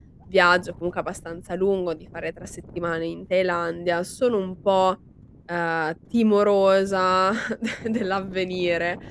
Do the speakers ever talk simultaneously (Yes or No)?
No